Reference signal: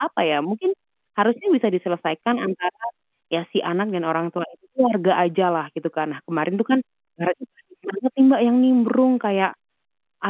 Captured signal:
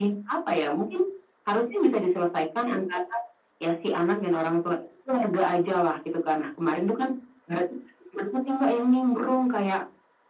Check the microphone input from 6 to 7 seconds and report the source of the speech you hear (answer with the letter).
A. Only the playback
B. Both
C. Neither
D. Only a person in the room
A